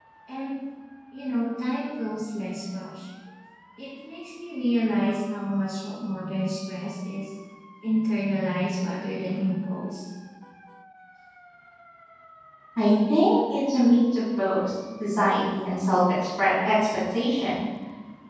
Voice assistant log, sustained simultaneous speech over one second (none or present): none